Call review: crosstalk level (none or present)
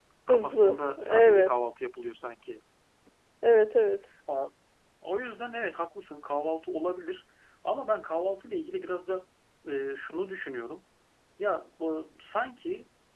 present